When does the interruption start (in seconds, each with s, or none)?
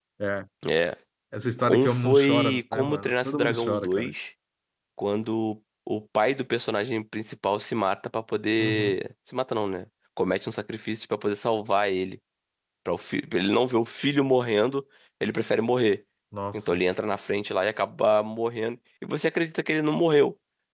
1.6 s